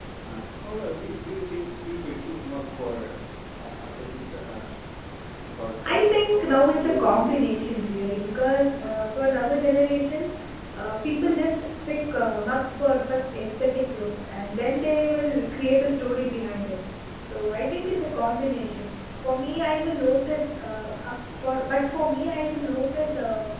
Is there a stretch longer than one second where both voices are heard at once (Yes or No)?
Yes